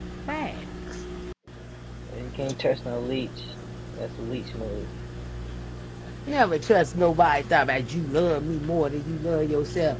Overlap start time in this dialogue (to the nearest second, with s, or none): none